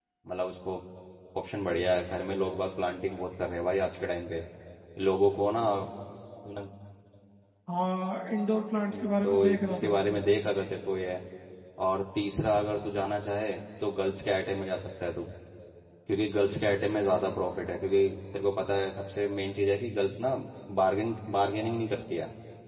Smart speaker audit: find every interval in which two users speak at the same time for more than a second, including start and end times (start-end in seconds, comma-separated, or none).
8.9-10.2